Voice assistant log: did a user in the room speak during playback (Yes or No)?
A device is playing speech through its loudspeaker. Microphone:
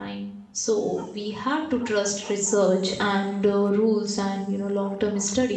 Yes